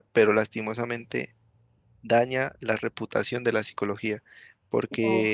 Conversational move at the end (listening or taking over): listening